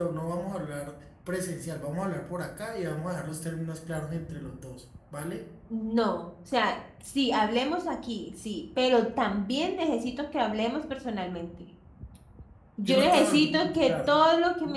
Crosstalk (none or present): present